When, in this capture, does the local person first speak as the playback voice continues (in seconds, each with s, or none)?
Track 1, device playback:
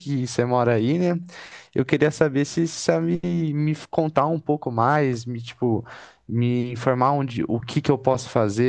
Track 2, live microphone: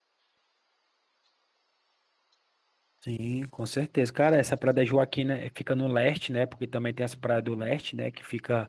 3.0 s